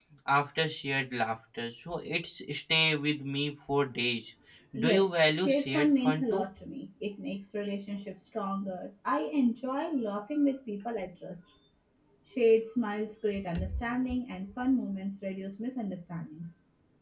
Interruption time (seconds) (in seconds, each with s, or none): 4.8 s